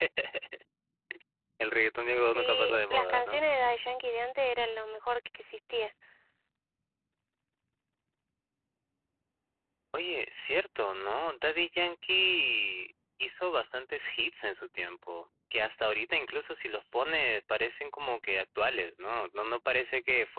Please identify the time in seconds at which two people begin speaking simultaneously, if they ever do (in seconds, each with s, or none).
2.1 s